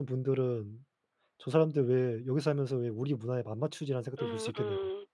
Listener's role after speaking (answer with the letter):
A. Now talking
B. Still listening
A